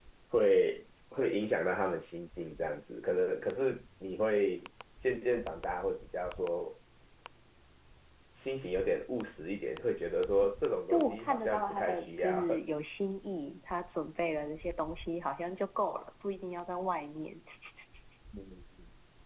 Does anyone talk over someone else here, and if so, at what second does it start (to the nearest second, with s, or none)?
11 s